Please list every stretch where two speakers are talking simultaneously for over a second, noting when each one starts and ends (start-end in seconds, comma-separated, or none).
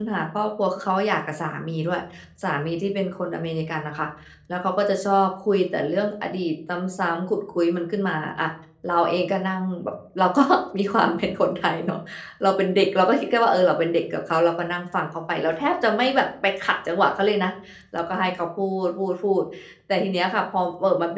none